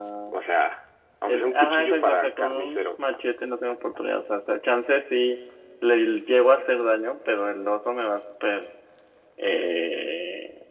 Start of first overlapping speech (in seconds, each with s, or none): 1.3 s